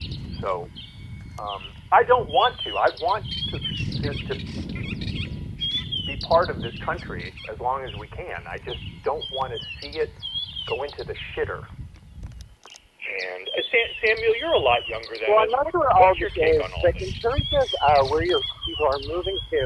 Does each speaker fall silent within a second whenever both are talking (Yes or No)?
No